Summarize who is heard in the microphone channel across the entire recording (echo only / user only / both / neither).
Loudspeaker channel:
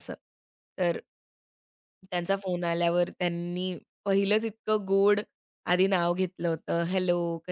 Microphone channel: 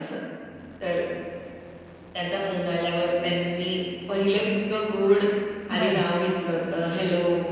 both